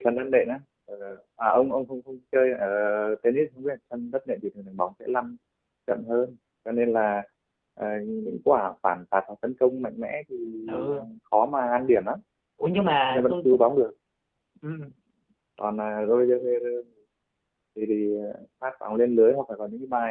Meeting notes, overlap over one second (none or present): none